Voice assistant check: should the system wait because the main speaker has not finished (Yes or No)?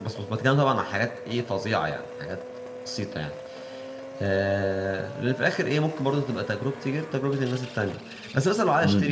Yes